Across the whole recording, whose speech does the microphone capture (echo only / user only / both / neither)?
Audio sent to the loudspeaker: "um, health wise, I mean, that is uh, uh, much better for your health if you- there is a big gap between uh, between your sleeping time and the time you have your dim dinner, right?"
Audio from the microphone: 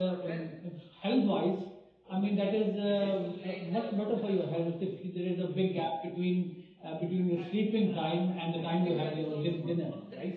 both